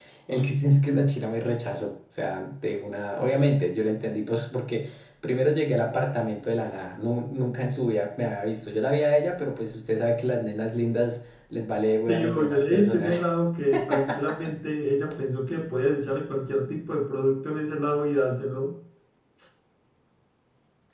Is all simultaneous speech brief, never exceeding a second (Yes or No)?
No